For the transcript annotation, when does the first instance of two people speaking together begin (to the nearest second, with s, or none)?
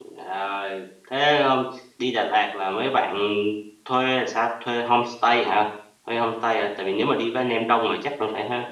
none